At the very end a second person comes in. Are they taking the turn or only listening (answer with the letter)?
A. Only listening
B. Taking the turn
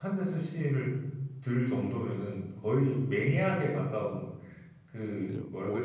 B